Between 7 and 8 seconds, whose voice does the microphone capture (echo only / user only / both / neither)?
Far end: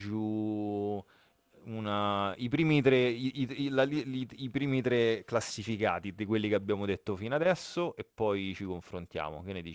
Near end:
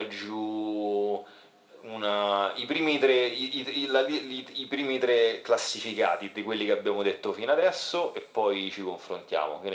echo only